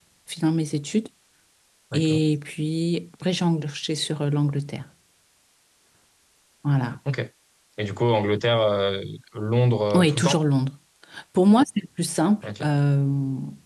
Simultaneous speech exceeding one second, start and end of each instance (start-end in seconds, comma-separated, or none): none